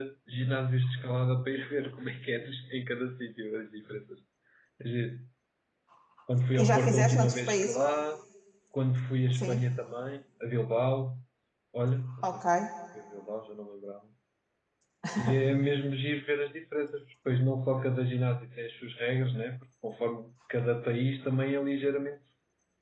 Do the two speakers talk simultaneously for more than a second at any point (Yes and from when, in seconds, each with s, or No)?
Yes, from 6.6 s